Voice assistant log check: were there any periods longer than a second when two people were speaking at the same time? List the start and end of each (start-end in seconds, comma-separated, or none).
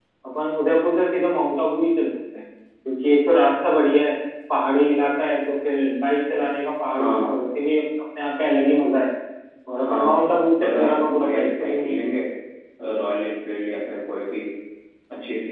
9.8-12.1